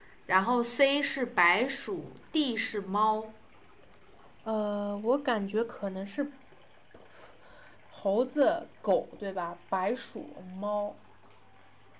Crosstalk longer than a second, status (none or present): none